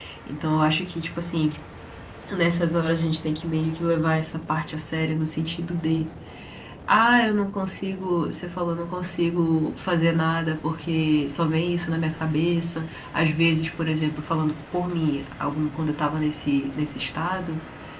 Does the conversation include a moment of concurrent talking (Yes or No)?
No